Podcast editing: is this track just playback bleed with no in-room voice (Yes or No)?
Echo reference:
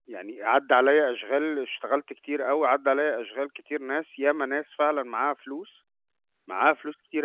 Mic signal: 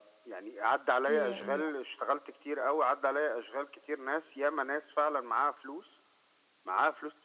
No